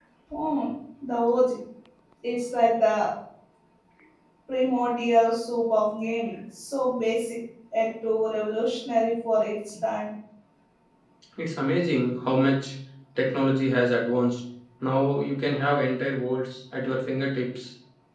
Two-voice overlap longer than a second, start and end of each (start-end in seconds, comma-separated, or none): none